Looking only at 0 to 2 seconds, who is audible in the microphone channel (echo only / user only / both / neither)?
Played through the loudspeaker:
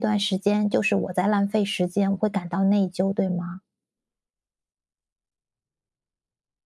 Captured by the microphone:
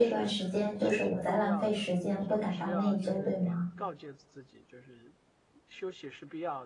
both